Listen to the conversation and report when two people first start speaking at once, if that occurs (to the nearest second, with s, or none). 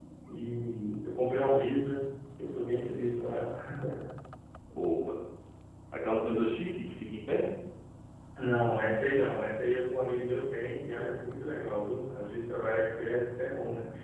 none